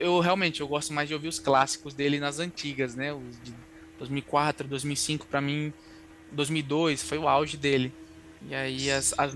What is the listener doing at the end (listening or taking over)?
listening